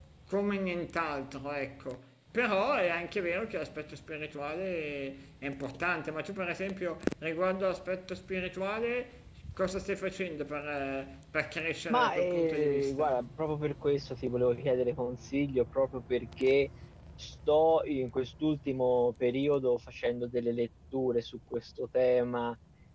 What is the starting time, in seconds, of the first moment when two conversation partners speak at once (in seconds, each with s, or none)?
11.9 s